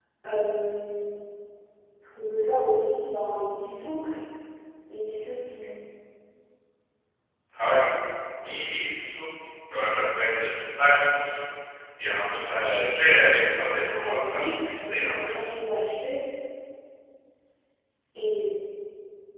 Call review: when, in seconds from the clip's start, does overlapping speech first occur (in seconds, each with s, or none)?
13.9 s